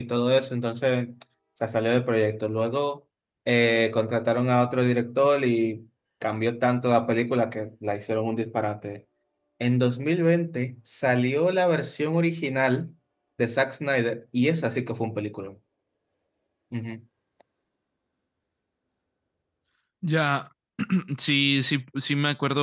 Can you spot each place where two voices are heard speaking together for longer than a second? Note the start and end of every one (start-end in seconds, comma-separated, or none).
none